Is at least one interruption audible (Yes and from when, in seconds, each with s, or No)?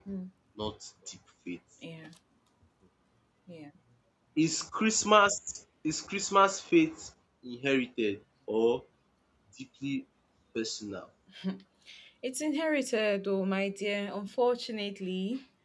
No